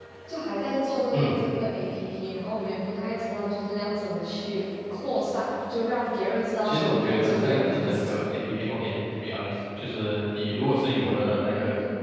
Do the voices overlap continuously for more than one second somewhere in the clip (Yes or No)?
Yes